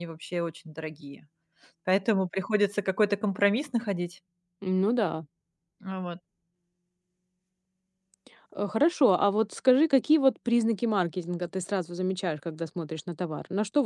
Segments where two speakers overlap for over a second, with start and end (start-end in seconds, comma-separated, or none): none